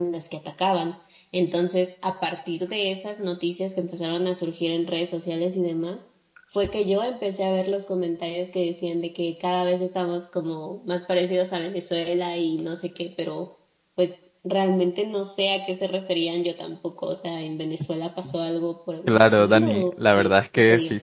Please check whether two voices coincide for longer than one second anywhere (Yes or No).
Yes